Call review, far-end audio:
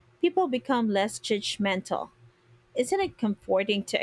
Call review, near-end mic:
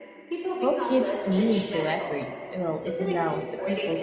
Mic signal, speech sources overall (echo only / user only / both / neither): both